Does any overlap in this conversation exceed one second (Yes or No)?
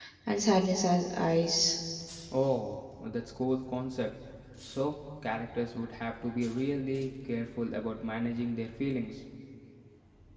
No